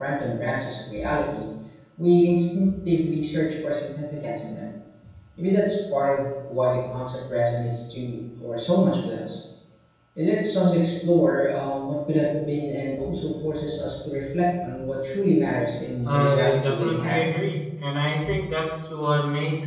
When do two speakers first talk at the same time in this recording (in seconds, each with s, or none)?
16.1 s